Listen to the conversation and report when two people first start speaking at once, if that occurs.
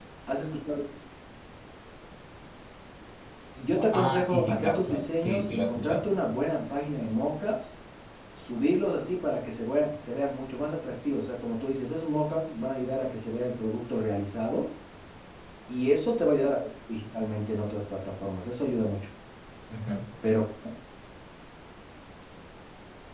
3.9 s

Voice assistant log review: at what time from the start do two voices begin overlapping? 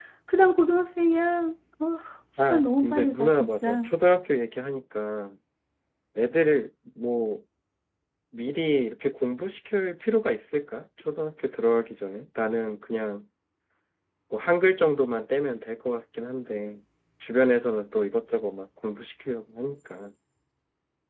2.4 s

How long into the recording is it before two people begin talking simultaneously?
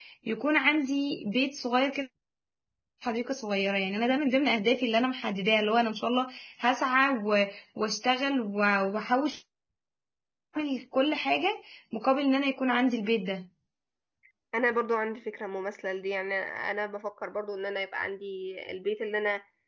none

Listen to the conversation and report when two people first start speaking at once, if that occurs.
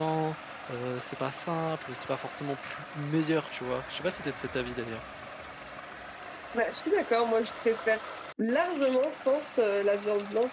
none

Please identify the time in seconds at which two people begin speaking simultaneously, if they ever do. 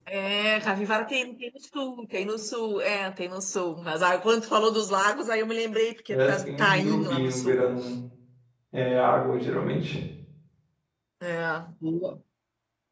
6.1 s

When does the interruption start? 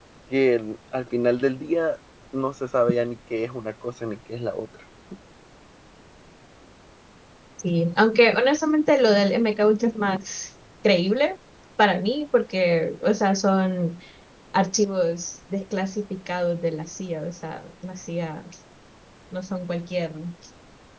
none

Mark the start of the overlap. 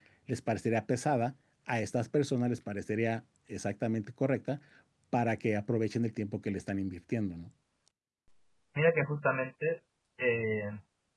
none

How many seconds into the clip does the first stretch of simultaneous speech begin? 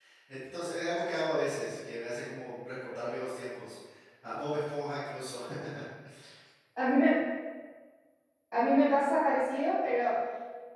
none

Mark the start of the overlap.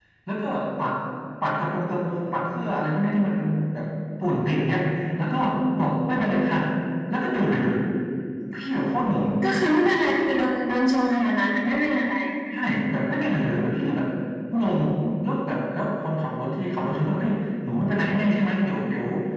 none

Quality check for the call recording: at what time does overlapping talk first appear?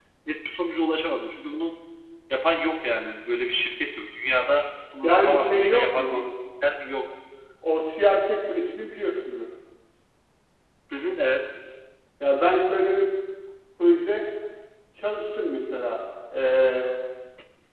5.0 s

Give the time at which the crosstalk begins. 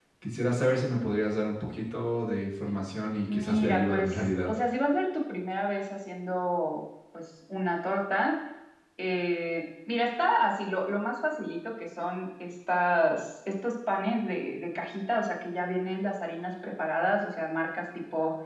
3.3 s

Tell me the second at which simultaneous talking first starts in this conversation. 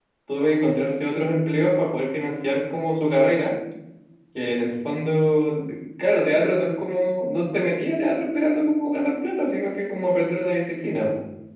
none

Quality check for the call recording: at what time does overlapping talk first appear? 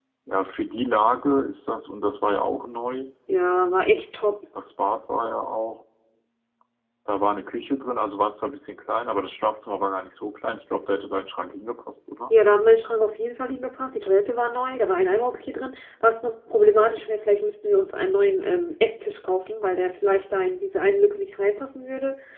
none

